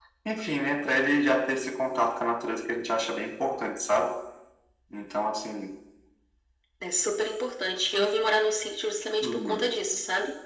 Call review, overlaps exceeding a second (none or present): none